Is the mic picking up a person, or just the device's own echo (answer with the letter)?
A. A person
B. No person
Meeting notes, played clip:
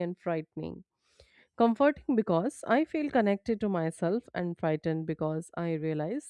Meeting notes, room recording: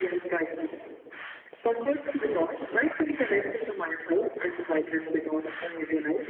B